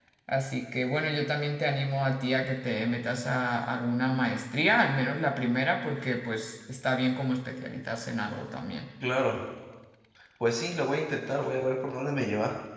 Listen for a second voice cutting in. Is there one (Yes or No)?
No